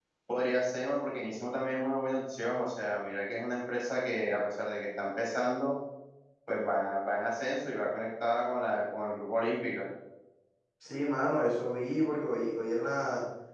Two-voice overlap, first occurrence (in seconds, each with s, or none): none